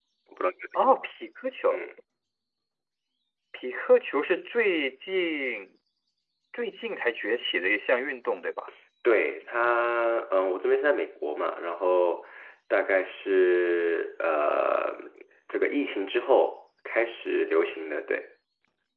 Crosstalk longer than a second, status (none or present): none